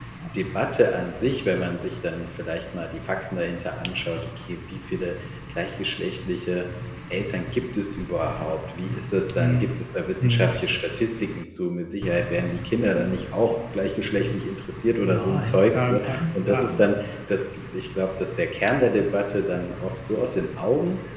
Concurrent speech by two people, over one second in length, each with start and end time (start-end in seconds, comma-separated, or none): 15.0-16.8